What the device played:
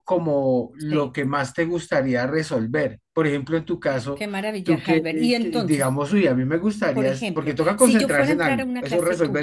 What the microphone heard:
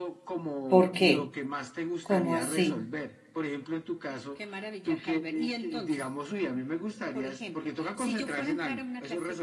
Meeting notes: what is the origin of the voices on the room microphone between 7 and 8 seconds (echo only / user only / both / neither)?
echo only